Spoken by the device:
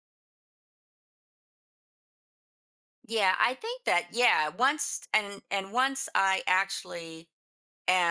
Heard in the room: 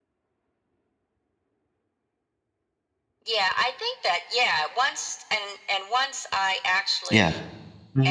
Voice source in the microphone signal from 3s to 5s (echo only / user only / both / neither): echo only